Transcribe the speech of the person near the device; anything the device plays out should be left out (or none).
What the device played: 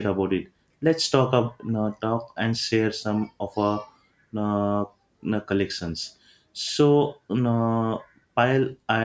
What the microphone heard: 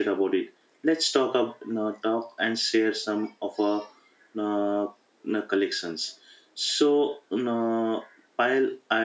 none